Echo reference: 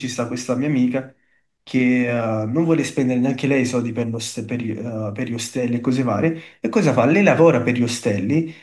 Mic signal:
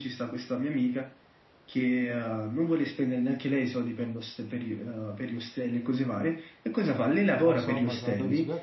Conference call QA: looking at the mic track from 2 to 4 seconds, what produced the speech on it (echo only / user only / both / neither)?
echo only